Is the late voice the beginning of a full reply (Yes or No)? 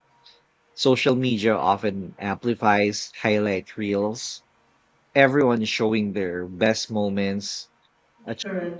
No